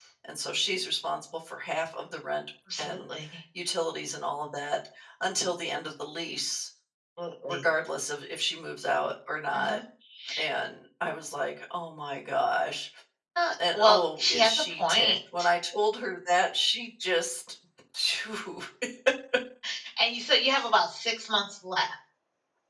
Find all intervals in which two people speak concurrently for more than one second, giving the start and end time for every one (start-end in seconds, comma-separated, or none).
13.7-15.1